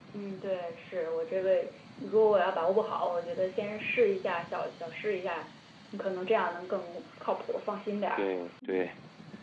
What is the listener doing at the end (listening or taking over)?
taking over